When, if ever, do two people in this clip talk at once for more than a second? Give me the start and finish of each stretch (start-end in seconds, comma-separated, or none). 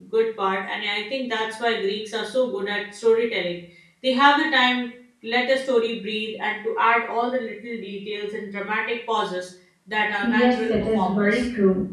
10.2-11.4